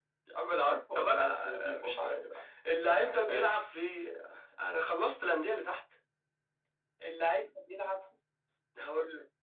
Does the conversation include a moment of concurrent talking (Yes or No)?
Yes